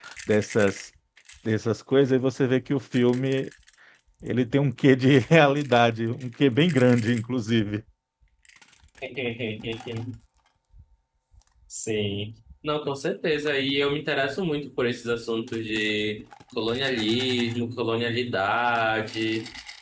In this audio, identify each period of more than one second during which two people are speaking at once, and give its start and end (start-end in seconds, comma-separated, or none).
none